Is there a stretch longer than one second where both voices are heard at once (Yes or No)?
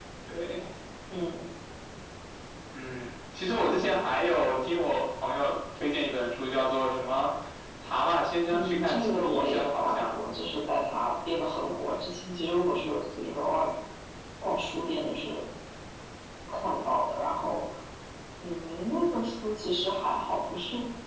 Yes